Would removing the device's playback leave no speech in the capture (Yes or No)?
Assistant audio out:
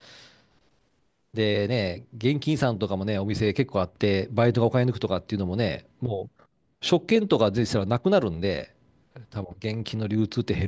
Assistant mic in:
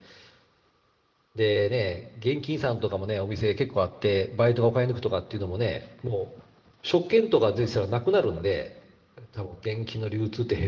Yes